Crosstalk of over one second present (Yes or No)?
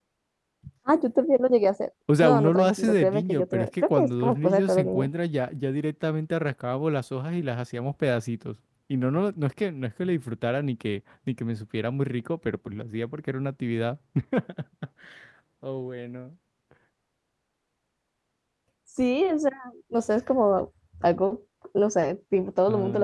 Yes